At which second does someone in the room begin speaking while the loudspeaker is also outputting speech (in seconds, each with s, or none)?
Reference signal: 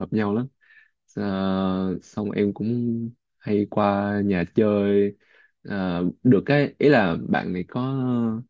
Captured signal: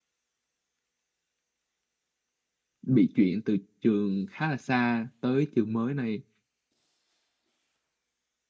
2.8 s